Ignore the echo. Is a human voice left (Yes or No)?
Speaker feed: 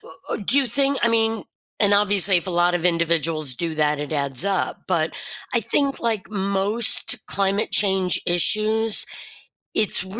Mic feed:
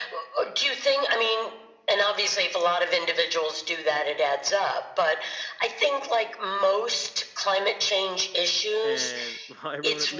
Yes